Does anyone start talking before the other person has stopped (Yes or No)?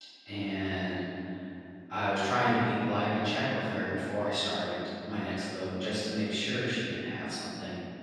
No